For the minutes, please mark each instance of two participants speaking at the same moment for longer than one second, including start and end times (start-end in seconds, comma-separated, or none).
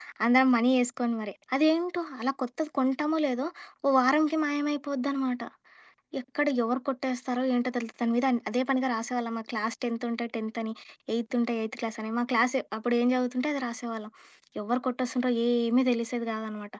none